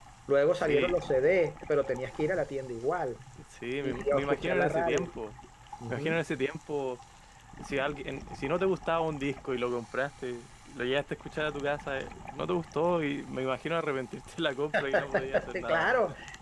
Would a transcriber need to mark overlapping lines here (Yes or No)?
Yes